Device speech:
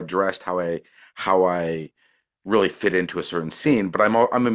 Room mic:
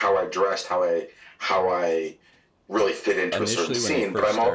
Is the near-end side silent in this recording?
No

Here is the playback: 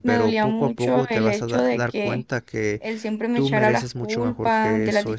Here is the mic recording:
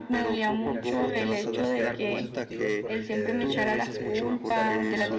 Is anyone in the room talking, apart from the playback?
Yes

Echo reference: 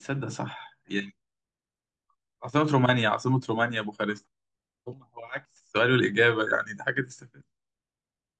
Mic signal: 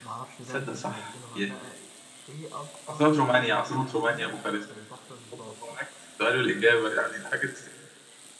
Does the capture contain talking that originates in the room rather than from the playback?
Yes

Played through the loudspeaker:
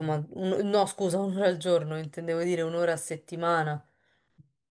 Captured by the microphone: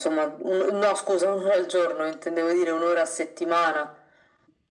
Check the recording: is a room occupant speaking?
No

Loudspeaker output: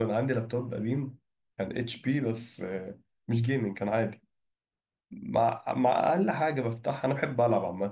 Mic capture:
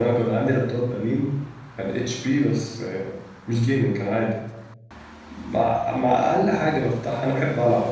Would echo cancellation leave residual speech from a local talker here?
No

